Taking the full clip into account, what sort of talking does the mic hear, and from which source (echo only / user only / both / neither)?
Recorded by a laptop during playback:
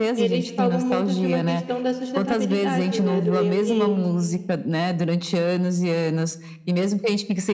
both